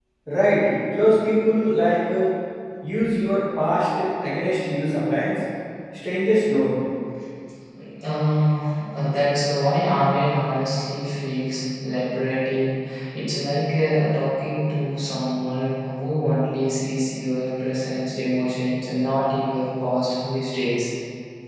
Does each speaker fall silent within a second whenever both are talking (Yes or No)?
Yes